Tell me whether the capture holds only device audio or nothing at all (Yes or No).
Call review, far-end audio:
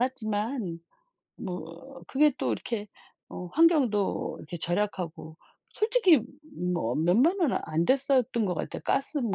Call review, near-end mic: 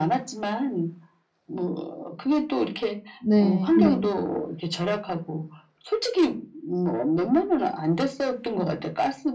No